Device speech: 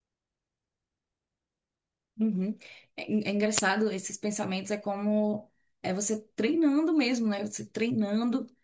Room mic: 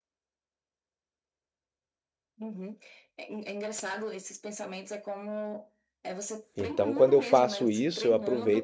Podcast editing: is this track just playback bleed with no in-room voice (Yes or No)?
No